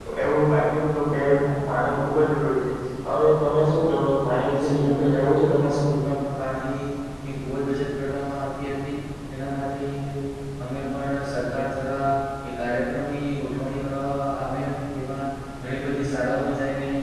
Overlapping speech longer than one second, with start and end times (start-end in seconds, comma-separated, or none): 4.2-5.8